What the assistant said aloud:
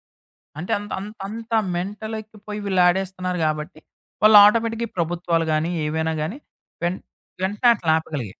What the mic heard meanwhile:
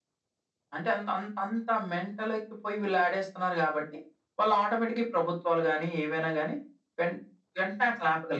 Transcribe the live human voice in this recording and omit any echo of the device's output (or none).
none